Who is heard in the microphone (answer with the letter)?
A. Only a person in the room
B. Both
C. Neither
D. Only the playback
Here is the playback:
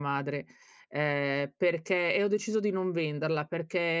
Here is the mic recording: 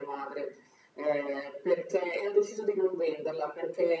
D